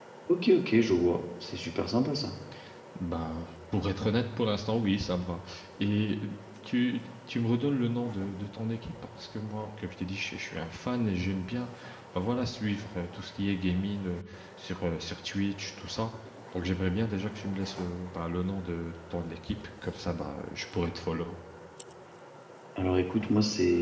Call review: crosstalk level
none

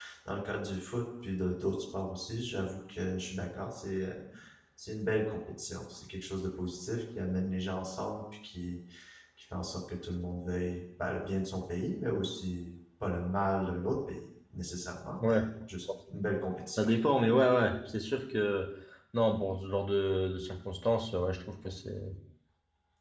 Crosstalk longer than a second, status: none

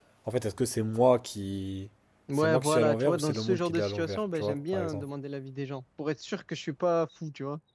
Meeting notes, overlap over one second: present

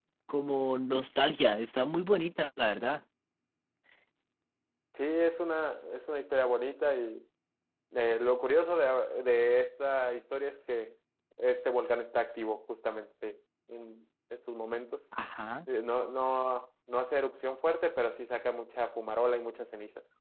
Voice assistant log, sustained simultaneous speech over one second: none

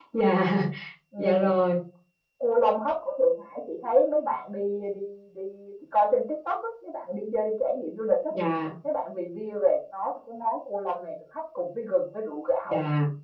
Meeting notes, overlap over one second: none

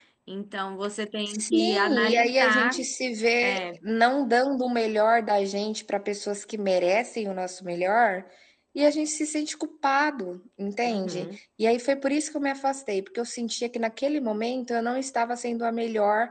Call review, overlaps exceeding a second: present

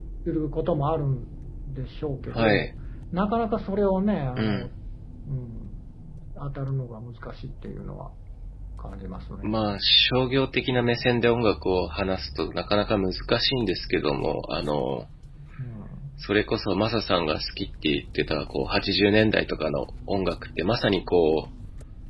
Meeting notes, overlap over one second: none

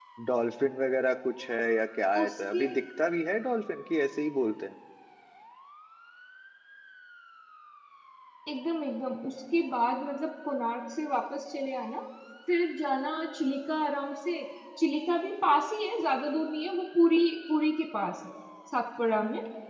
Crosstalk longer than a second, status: none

